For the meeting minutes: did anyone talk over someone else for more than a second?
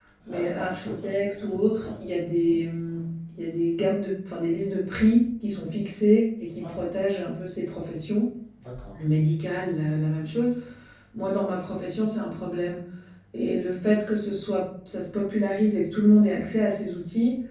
Yes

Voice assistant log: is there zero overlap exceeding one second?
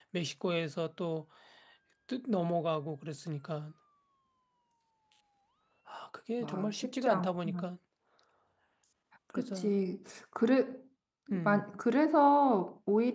No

